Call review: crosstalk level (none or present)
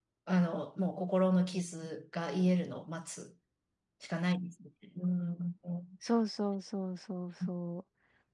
none